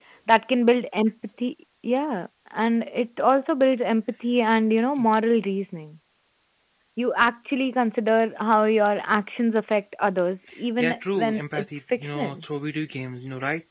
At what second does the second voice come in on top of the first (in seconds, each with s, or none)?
10.8 s